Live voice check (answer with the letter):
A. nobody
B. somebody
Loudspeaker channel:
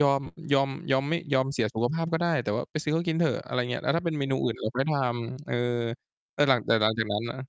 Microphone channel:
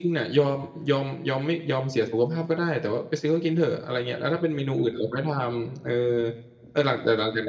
A